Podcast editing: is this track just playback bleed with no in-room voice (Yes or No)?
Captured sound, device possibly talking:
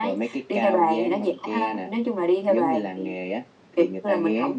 Yes